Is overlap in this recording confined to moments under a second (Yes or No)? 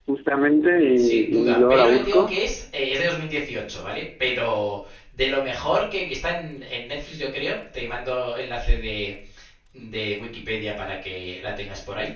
No